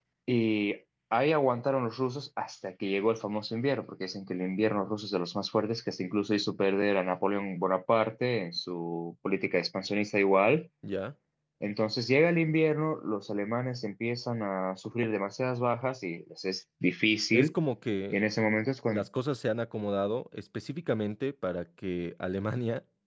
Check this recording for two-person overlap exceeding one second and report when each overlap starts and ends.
none

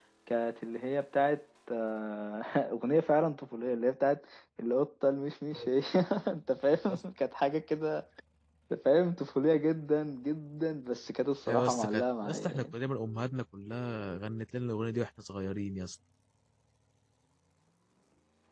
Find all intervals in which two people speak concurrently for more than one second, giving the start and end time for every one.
11.5-12.7

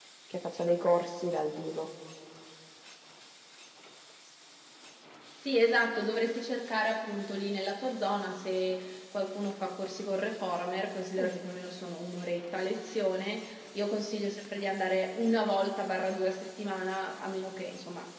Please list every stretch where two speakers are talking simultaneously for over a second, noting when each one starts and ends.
none

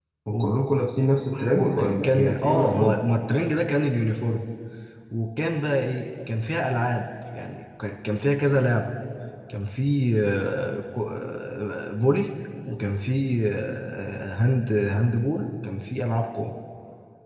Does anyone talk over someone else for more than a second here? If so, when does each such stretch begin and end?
1.6-3.0

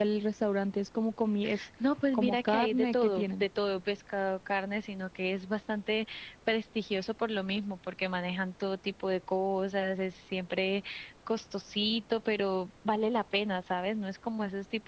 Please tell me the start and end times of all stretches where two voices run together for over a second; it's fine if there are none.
2.1-3.4

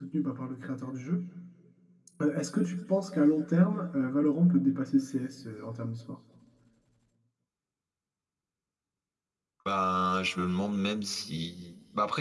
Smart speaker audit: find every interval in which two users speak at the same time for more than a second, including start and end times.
none

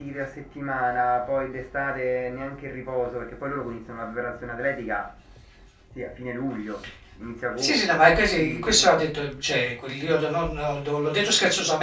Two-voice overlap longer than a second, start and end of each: 7.6-9.0

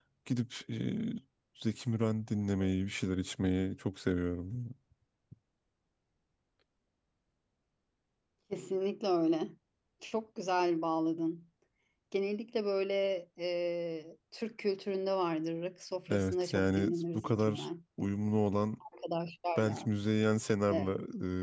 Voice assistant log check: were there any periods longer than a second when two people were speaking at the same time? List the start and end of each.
16.1-17.7

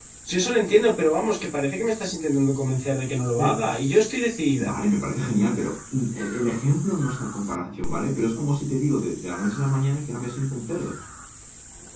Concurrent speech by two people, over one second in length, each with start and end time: none

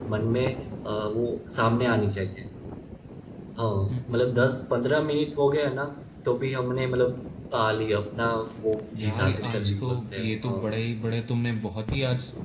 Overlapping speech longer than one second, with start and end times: 9.0-10.6

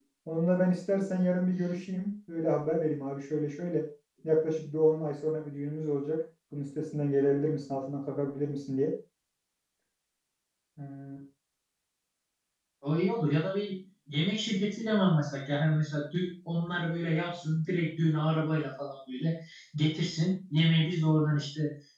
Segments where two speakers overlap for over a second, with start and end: none

